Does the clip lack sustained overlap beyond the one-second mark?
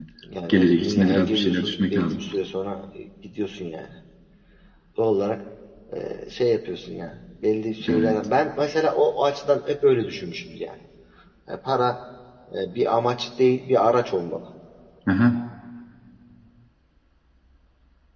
No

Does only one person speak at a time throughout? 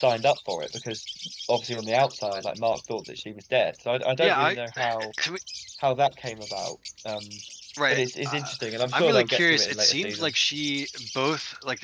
No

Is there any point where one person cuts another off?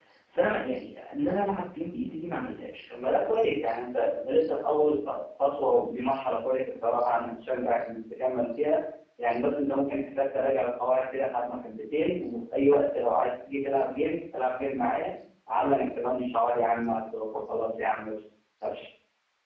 No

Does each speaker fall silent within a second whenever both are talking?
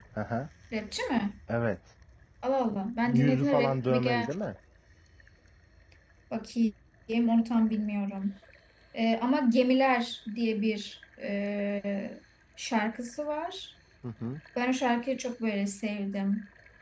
No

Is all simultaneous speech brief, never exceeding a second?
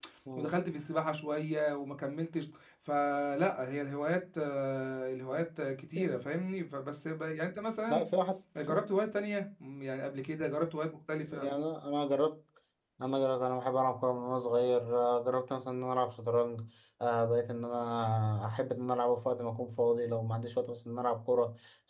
Yes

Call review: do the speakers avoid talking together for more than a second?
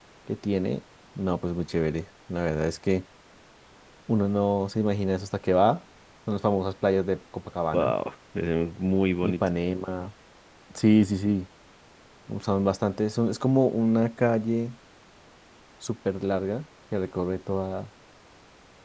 Yes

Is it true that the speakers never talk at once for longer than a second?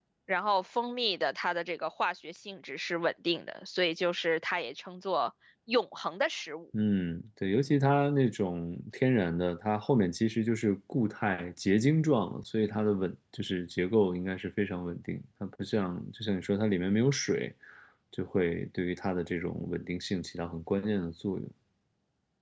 Yes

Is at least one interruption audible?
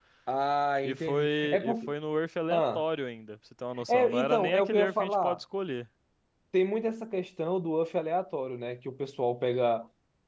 Yes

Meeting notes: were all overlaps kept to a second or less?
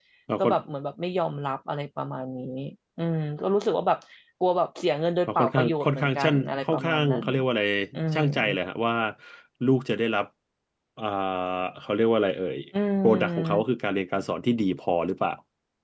No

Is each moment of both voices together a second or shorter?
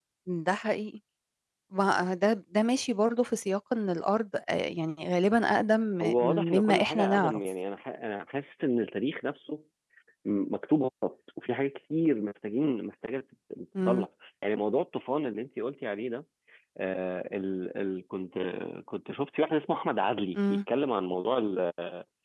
No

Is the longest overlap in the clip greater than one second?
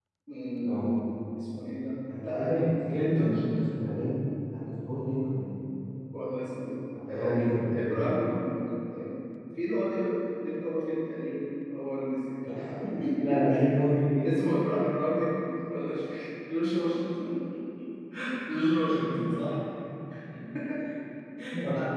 Yes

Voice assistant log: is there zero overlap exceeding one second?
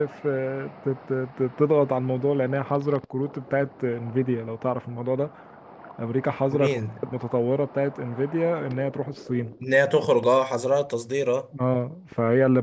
Yes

